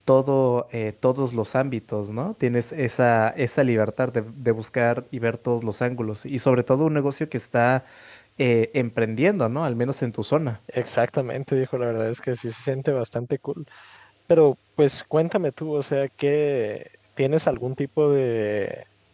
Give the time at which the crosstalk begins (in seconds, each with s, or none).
none